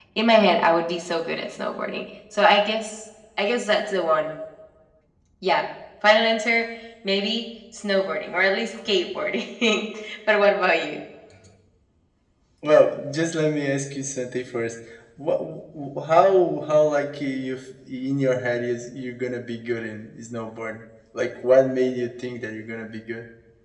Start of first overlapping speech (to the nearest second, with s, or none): none